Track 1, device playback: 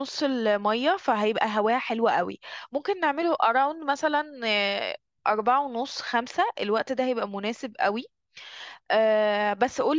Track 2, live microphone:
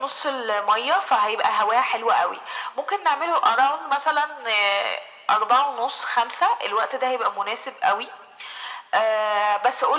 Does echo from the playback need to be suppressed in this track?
Yes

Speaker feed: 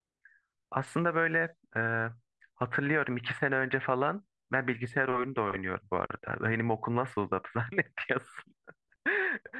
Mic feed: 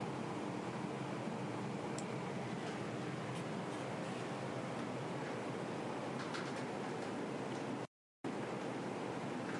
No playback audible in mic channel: Yes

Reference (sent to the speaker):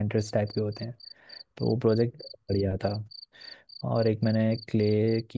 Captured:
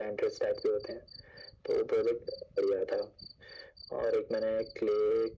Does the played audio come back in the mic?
Yes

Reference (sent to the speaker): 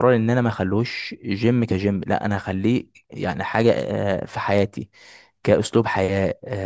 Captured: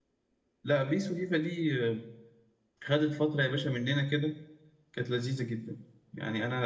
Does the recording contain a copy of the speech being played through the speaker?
No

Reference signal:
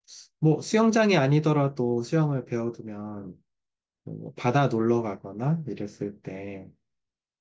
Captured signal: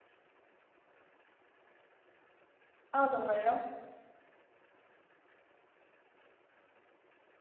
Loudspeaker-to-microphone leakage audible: No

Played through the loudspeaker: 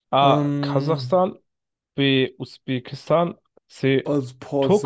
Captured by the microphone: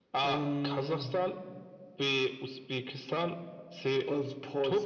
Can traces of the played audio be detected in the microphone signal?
Yes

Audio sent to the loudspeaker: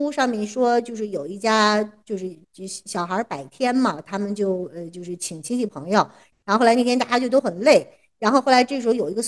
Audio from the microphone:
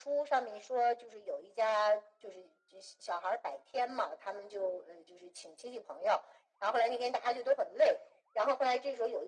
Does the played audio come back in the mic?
Yes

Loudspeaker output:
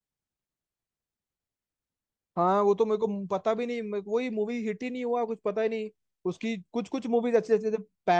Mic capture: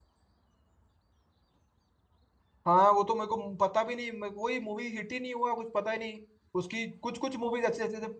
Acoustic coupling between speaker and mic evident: Yes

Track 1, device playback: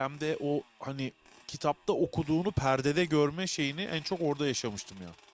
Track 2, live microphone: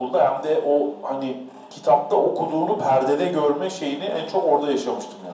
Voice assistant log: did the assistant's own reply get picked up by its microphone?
Yes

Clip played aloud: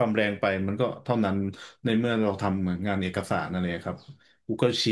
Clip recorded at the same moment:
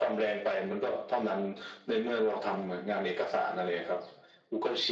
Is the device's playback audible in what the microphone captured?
Yes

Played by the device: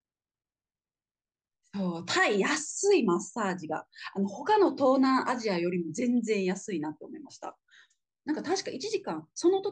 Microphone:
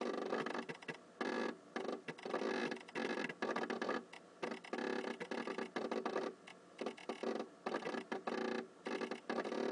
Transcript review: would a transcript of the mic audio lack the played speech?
Yes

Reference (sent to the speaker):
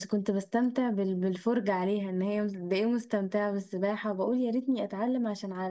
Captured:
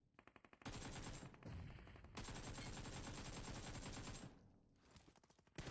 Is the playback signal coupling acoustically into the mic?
No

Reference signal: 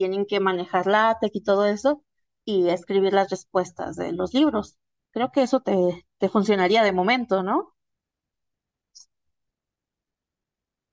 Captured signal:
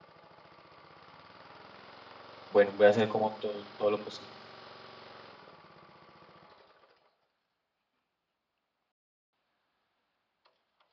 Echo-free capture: Yes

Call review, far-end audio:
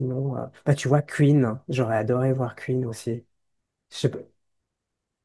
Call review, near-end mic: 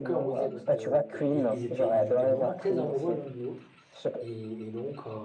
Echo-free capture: No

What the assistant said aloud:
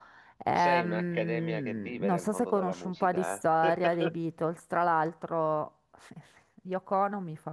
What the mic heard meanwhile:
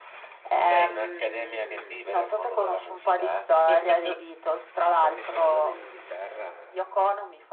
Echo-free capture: No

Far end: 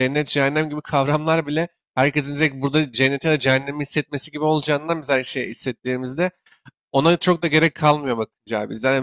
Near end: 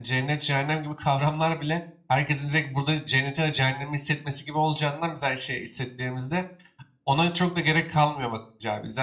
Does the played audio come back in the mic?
Yes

